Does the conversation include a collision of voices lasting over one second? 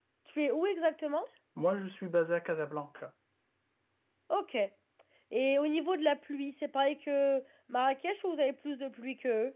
No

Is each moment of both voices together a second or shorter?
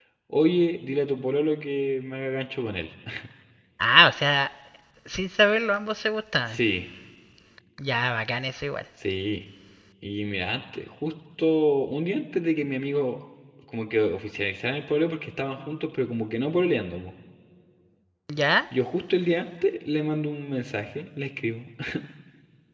Yes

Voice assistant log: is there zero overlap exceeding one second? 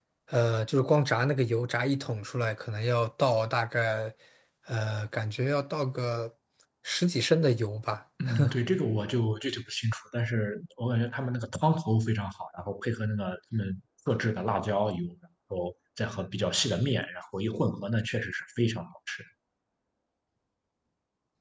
Yes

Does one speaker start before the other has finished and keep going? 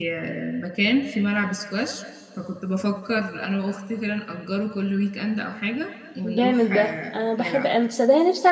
Yes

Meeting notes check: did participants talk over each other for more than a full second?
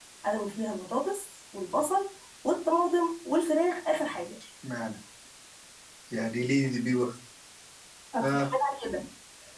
No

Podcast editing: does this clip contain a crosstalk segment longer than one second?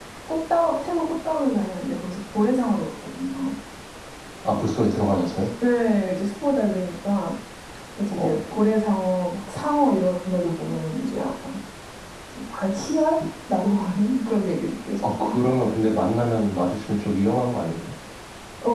No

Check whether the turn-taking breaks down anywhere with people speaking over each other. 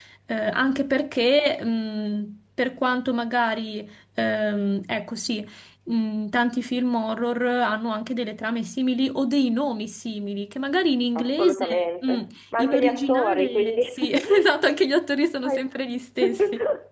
Yes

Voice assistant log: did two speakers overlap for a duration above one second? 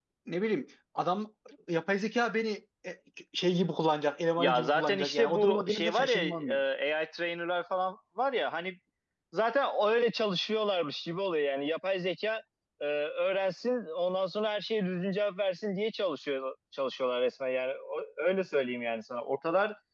Yes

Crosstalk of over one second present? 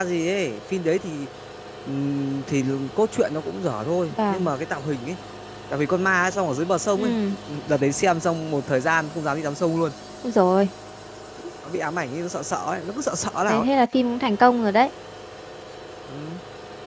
No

